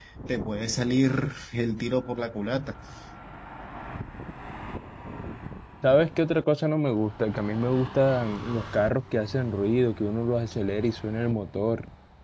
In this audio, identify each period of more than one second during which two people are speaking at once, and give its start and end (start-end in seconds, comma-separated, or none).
none